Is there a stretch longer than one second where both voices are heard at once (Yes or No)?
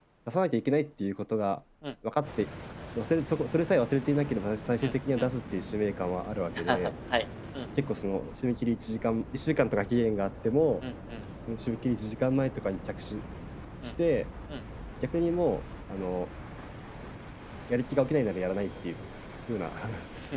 No